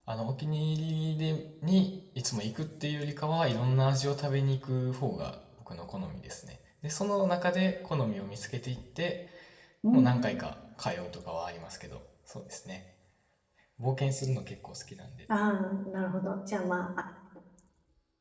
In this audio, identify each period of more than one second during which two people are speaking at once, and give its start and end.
none

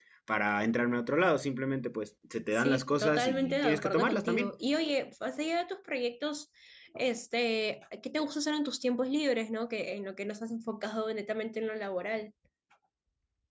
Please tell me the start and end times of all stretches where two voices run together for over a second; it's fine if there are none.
2.5-4.5

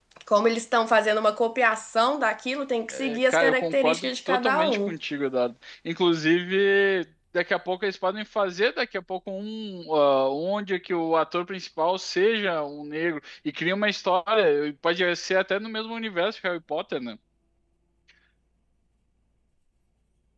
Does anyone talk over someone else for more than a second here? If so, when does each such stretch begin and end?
2.9-4.9

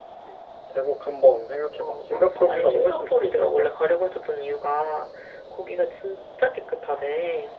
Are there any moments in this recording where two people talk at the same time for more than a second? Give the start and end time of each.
1.8-3.7

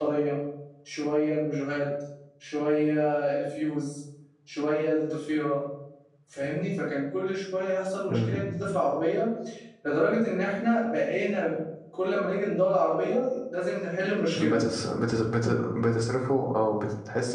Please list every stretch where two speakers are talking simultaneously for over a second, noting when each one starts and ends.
none

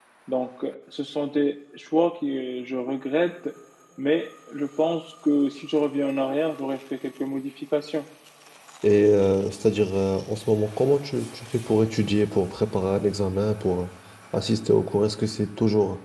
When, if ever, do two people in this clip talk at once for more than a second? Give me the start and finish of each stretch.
none

